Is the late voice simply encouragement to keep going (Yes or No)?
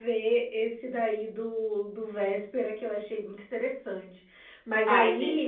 Yes